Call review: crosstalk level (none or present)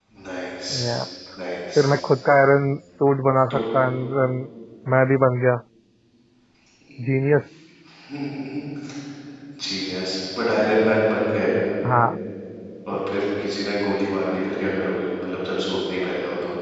none